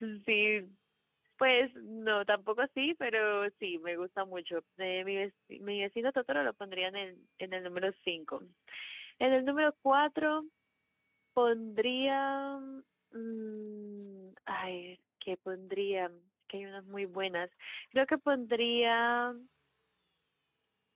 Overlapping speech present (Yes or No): No